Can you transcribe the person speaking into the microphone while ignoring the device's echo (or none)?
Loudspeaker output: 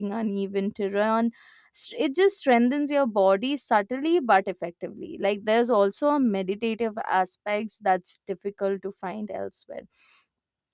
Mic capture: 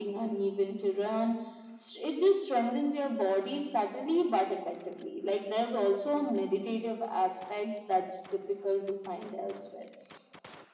none